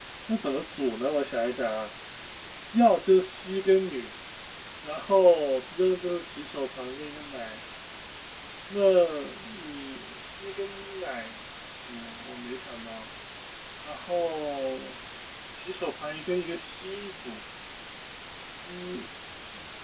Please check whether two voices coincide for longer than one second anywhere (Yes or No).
No